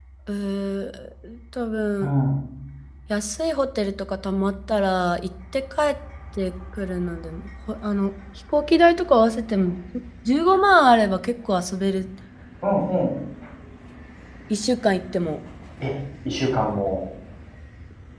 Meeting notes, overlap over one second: none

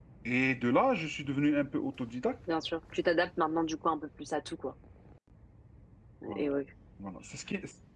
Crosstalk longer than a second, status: none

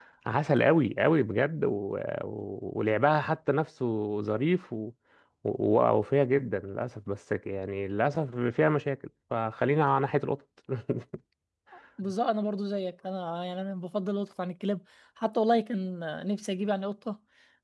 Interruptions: none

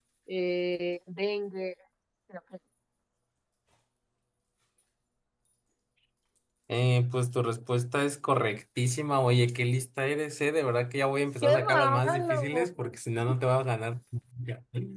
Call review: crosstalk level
present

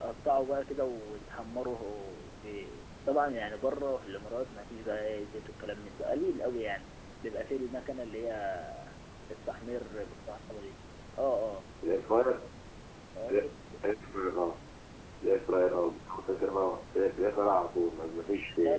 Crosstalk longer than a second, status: none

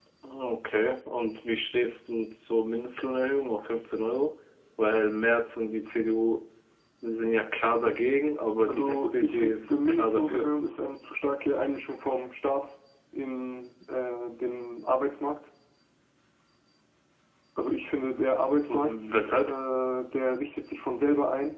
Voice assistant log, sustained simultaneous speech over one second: present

